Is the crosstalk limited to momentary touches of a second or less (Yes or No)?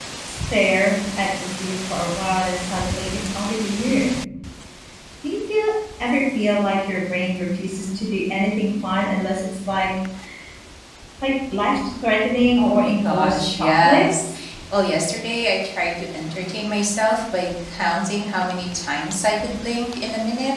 No